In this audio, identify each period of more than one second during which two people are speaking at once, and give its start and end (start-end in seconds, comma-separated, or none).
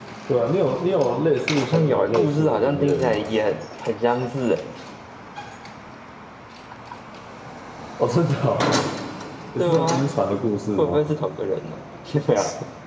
1.5-3.2